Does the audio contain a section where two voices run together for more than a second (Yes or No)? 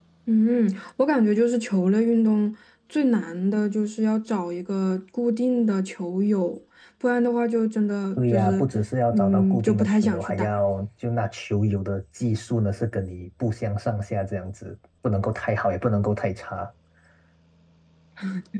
Yes